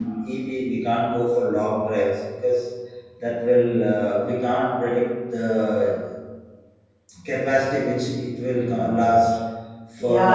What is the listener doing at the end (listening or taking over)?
taking over